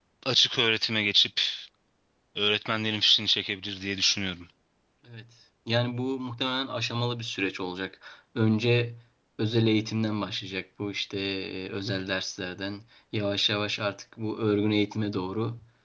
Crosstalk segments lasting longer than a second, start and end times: none

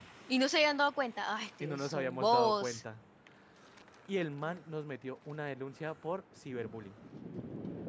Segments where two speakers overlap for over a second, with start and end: 1.6-2.8

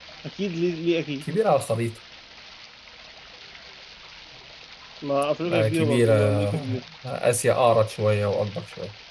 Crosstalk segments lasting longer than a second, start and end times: 5.5-6.8

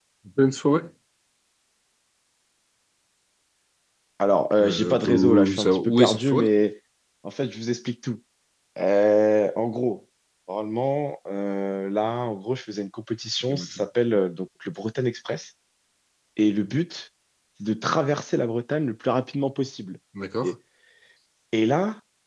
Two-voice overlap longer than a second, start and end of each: 4.6-6.4

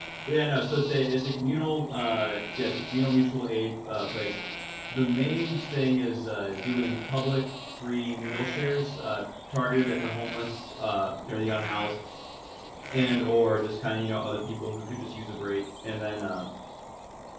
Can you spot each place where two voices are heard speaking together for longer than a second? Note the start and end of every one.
none

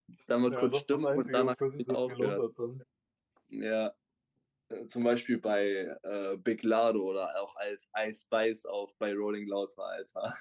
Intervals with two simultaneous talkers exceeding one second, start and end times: 0.5-2.4

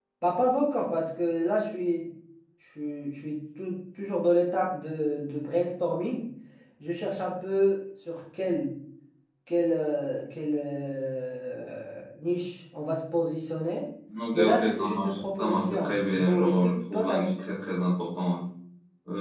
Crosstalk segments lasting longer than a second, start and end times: 14.3-17.2

